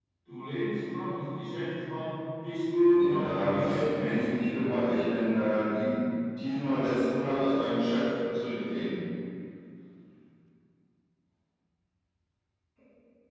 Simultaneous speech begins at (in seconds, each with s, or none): 2.8 s